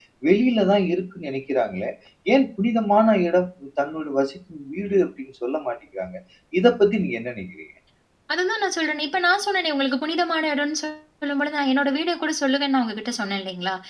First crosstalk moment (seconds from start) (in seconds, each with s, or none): none